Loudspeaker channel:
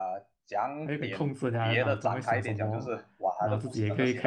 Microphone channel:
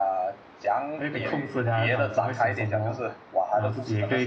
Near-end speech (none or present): present